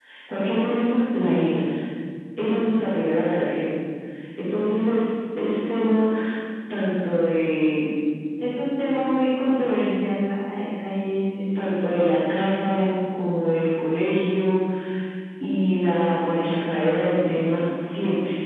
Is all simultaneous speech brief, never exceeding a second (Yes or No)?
Yes